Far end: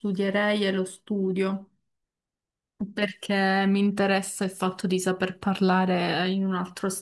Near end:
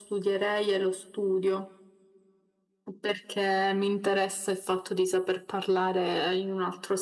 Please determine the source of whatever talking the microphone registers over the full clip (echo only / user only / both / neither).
echo only